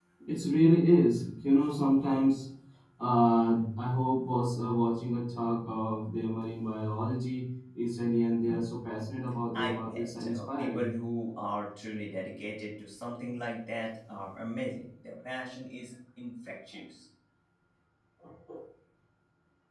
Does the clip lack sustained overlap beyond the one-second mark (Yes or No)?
No